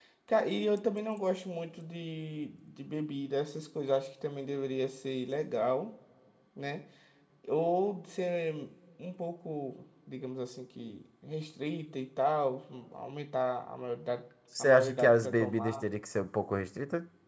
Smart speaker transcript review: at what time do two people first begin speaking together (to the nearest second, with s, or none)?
15 s